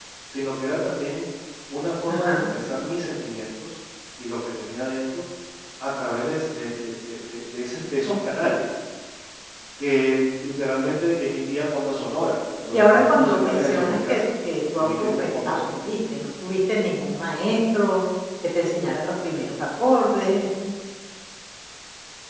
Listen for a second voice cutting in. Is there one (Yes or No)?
Yes